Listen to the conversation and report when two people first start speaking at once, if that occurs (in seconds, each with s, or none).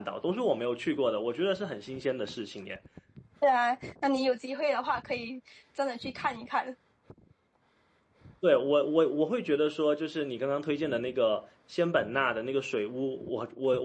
none